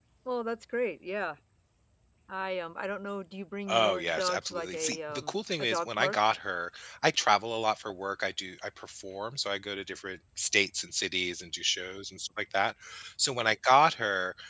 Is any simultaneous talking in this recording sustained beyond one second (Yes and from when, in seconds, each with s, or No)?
Yes, from 3.7 s